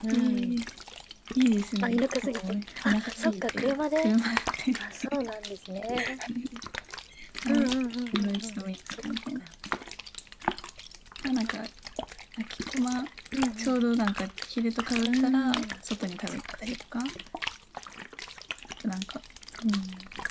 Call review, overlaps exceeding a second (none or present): present